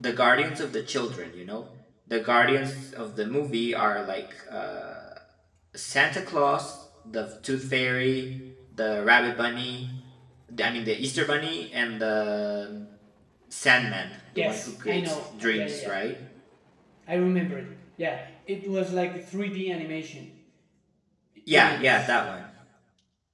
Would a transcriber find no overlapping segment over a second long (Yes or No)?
No